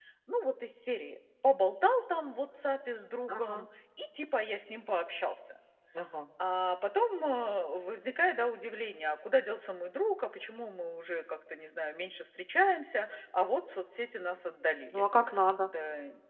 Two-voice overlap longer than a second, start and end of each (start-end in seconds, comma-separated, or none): none